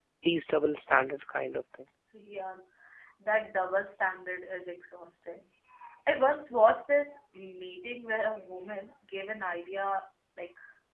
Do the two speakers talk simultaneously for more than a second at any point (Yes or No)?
No